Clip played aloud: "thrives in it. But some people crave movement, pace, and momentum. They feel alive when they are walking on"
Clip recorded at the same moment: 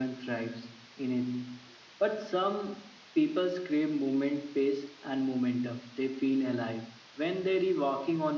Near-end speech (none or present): none